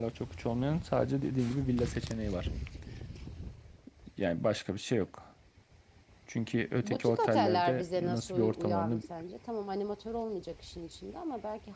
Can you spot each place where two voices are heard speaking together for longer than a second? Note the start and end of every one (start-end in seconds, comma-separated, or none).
6.8-9.0